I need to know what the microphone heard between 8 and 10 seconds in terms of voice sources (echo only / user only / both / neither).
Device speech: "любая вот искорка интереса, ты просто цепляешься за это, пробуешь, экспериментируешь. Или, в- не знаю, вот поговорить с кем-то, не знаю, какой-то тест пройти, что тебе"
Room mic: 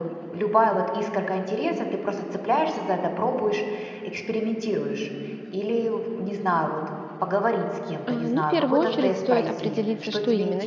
both